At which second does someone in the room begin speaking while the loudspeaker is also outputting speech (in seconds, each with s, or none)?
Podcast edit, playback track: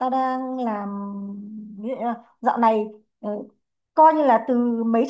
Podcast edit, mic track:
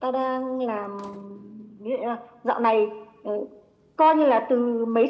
none